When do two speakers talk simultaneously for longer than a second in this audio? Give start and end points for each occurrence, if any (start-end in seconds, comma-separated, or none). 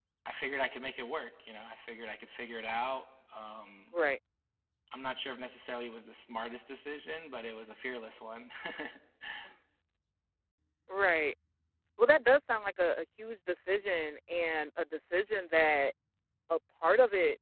none